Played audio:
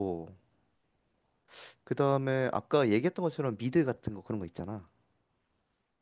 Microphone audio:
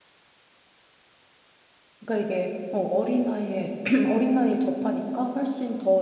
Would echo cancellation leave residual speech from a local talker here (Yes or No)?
Yes